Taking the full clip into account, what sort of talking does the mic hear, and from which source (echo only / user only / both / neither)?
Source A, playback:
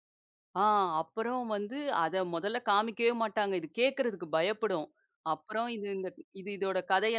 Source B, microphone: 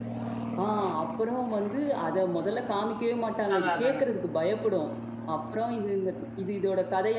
both